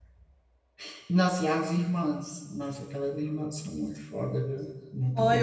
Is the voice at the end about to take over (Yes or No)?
Yes